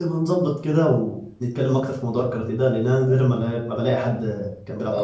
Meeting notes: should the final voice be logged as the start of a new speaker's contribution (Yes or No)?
Yes